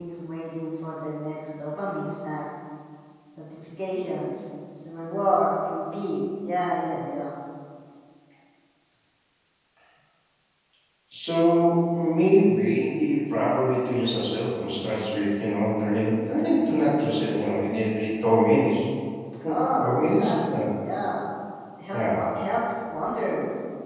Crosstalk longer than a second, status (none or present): present